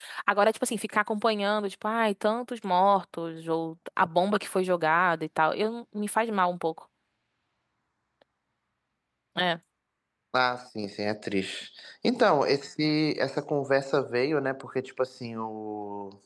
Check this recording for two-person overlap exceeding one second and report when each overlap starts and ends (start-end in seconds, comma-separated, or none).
none